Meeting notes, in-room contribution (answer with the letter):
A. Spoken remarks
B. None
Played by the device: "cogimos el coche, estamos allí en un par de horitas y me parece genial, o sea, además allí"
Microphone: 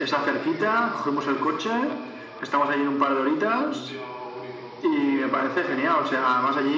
A